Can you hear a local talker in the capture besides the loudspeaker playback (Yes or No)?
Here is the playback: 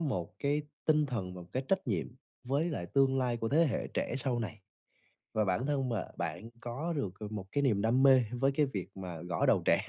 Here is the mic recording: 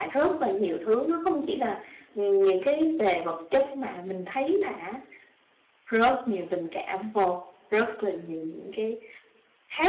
Yes